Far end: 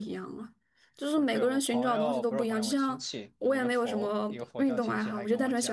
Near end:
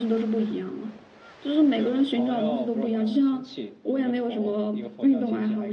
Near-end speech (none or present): none